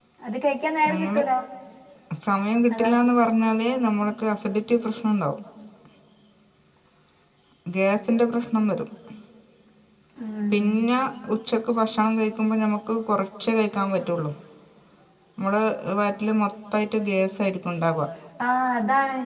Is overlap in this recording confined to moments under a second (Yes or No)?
Yes